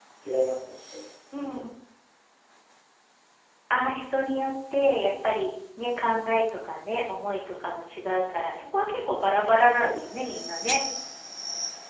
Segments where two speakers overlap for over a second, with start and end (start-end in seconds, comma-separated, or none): none